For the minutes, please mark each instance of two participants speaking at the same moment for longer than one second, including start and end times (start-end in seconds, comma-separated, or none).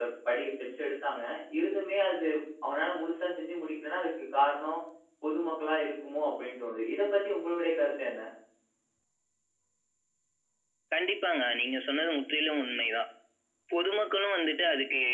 none